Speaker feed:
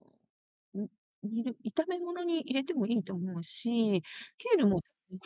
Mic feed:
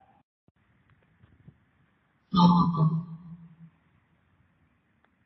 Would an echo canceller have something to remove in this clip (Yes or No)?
No